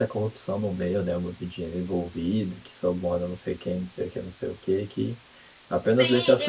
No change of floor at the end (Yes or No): No